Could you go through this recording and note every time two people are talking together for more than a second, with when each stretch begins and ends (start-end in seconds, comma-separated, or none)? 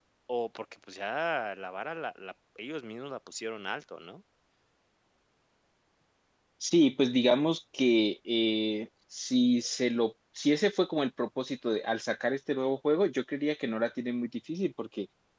none